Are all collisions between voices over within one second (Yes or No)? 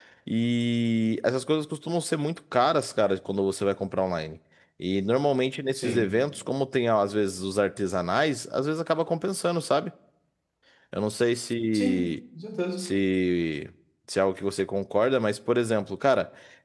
Yes